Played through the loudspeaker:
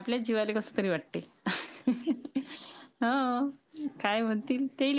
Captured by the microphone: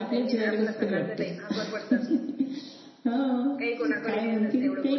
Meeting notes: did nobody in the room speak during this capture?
No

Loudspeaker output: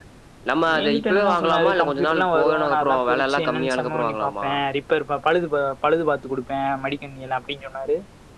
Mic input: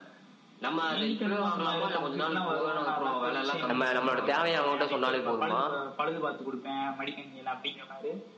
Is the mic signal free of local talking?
No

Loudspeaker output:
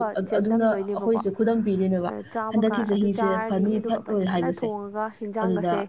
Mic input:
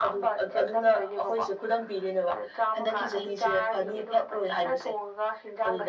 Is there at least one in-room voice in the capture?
No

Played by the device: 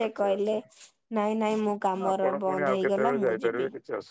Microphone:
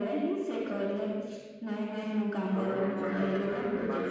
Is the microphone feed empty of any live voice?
No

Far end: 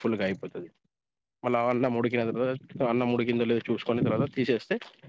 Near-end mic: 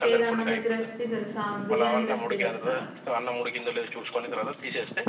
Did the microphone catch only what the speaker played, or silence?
No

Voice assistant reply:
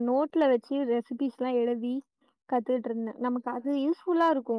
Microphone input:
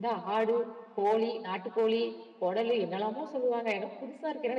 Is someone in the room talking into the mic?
Yes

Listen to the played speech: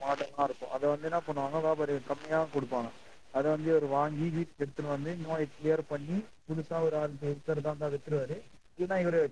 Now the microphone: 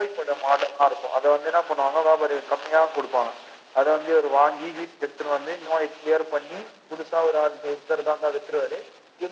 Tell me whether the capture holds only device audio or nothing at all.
Yes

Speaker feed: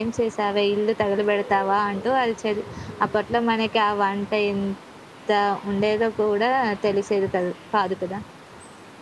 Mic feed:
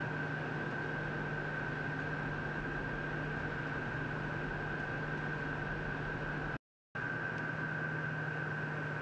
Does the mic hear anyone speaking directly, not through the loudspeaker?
No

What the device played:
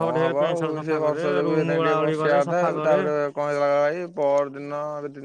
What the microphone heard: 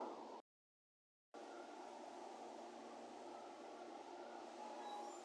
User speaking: No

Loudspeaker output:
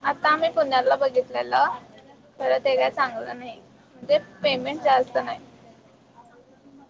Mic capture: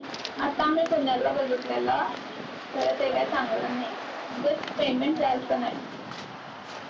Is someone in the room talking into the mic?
No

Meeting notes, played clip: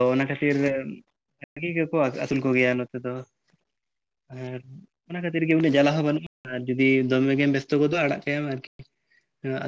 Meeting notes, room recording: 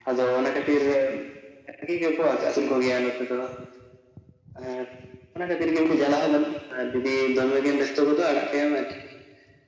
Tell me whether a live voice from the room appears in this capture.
No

